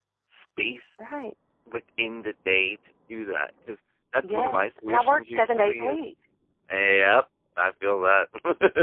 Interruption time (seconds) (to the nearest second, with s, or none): 4 s